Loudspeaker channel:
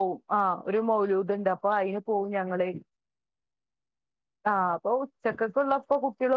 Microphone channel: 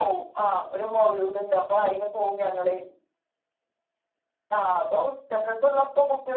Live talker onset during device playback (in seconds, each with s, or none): none